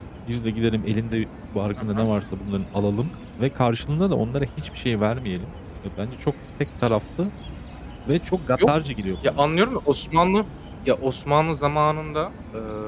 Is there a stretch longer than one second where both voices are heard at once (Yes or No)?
No